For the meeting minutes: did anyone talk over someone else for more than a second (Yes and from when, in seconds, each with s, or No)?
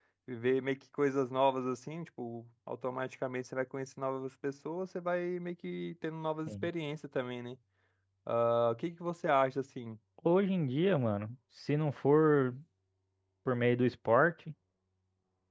No